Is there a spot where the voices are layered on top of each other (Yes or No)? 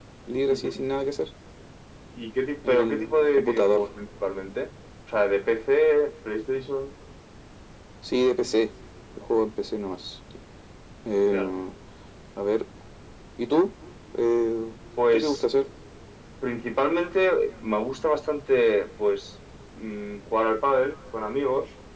Yes